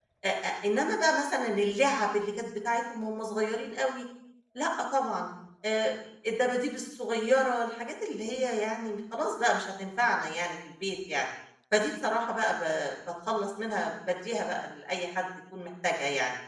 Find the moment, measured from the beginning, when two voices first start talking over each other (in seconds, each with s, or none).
none